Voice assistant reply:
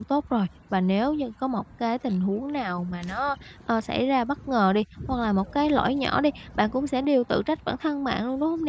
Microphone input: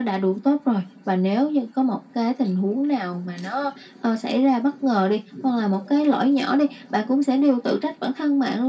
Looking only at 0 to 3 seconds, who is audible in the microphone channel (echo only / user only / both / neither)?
echo only